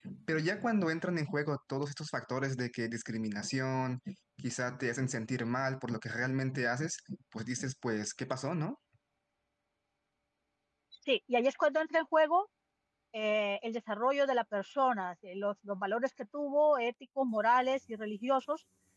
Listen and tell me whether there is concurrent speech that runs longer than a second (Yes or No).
No